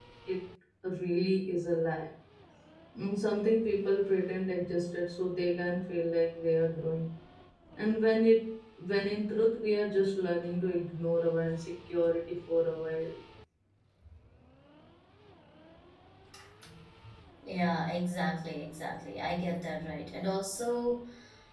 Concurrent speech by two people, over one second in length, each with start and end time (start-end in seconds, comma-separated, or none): none